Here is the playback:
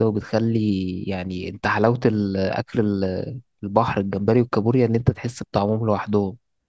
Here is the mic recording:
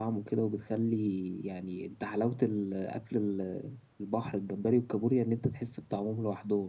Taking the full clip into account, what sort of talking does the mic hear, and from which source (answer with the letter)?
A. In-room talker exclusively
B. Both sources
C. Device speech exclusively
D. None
C